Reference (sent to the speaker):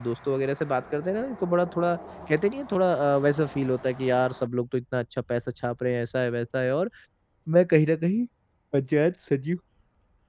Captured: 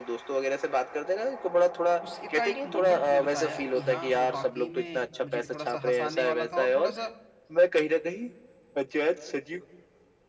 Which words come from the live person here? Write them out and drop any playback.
उस एकाएक मूवमेंट हमें बताया कि हाँ, वो वाक़ई में मुझे भी थोड़ा-सा हँसाने वाला था और थोड़ा-सा

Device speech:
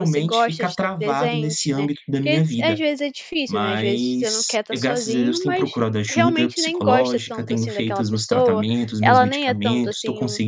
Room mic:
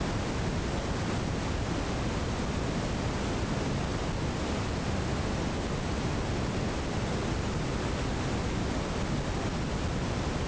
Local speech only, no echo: none

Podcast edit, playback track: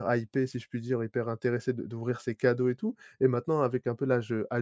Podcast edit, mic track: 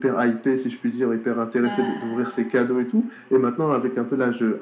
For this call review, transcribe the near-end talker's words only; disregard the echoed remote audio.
Bah

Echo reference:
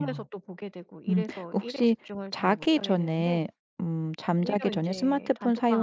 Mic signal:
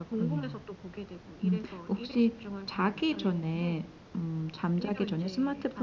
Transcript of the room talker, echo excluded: none

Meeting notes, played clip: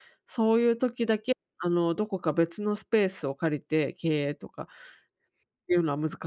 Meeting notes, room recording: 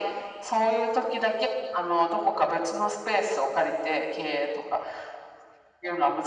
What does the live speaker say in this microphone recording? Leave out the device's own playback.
none

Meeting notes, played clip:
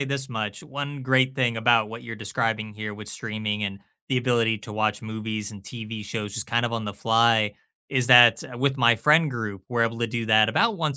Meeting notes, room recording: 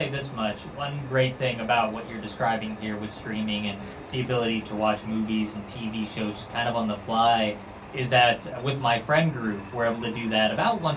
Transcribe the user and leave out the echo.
none

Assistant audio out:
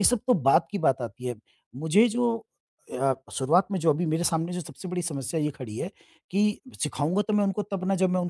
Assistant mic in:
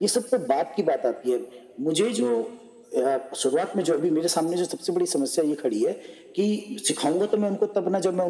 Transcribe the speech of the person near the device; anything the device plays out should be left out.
none

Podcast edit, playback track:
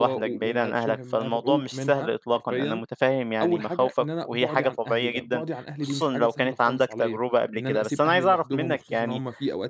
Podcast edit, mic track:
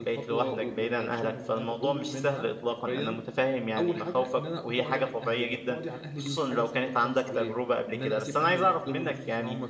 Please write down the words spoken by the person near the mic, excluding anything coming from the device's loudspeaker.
none

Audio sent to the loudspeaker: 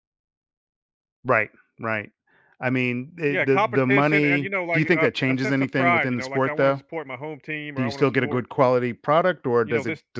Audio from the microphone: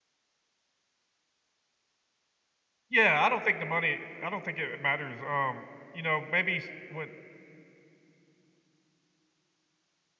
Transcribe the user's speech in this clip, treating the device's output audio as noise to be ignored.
Yeah, I don't think the money. I don't think it matters. Um, you know, maybe s- with

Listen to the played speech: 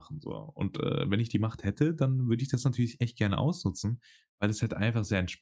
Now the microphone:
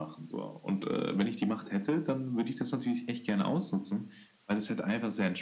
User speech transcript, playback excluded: none

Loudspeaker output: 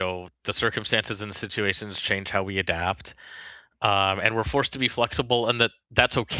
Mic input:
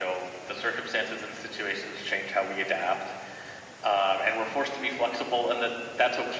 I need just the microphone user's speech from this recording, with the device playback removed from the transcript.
none

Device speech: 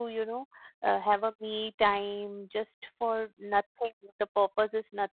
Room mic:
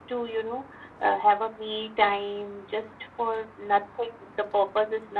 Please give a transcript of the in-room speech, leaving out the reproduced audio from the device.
none

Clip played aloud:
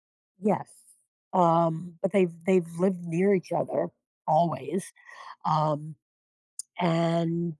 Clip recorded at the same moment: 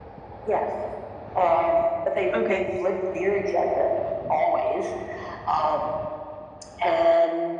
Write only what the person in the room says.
Okay.

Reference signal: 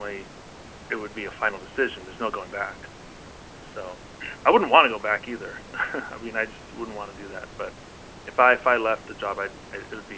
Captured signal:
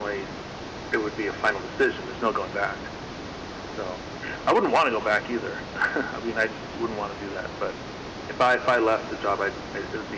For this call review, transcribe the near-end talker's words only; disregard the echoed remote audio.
none

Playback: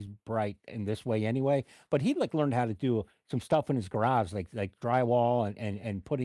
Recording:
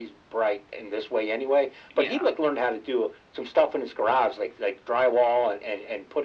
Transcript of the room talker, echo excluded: Yeah.

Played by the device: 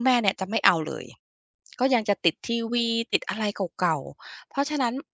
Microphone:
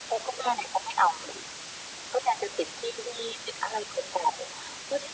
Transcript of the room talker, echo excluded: none

